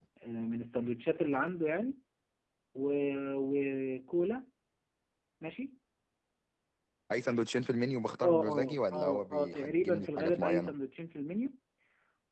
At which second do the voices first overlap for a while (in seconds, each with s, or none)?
8.2 s